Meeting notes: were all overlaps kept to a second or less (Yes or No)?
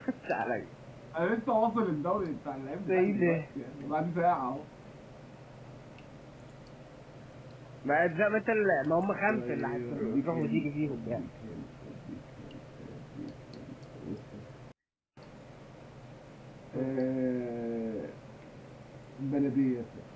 No